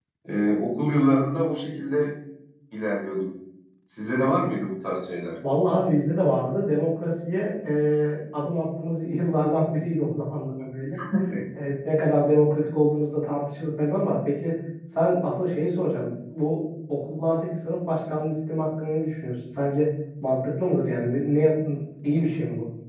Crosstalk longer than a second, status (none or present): none